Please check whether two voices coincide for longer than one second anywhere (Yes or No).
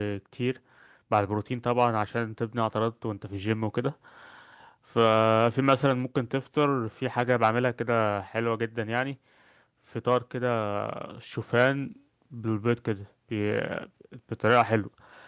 No